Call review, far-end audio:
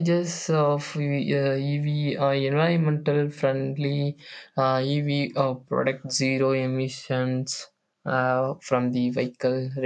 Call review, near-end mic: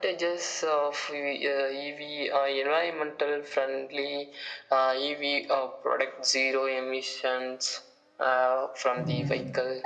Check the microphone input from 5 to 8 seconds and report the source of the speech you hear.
echo only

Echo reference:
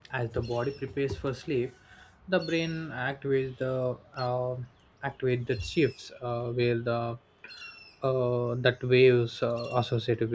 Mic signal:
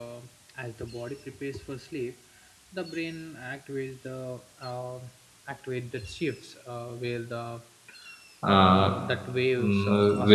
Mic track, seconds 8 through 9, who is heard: both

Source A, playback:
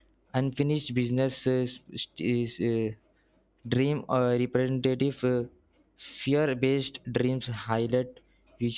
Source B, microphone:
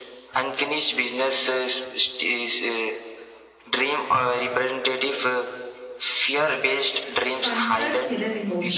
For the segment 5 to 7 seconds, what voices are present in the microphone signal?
echo only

